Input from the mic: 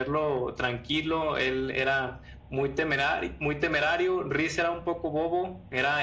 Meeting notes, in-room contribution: none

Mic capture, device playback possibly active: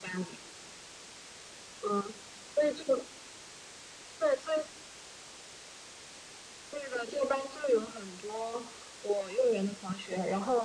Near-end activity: none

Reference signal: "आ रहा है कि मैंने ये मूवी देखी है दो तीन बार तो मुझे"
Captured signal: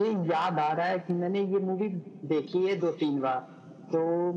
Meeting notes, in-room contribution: none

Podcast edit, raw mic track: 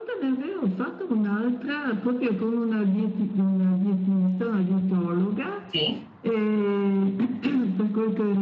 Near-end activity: present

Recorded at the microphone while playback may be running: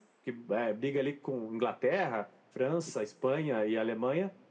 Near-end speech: none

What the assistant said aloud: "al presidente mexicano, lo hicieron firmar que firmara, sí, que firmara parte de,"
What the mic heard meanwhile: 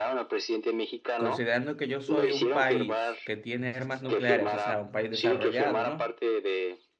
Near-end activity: present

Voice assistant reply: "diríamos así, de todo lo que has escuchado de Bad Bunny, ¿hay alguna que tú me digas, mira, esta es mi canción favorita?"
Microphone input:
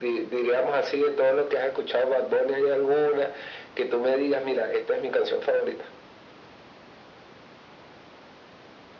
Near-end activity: none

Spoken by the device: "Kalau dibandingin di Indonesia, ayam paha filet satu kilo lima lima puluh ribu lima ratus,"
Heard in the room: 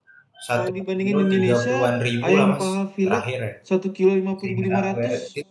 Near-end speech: present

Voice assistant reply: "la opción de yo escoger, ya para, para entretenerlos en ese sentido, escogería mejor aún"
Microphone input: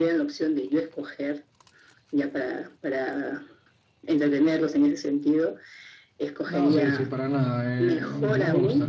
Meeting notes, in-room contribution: present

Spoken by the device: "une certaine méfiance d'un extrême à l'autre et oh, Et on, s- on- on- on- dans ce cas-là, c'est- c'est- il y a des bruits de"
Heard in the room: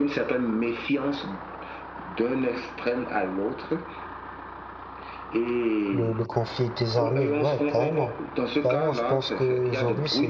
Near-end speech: present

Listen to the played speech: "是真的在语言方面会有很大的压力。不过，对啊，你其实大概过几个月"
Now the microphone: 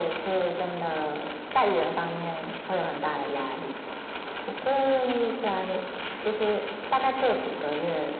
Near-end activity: none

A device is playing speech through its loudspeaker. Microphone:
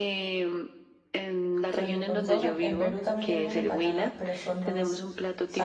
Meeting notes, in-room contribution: present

